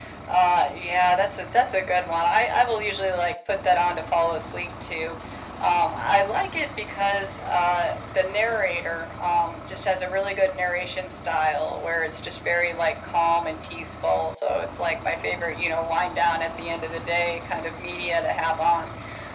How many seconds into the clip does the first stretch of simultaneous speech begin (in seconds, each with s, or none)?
none